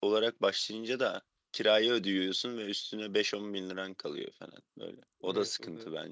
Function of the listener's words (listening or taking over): taking over